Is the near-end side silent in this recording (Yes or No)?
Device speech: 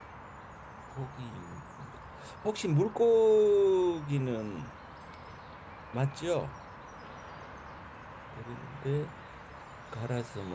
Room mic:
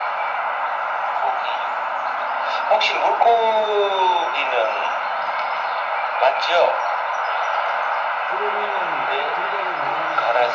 No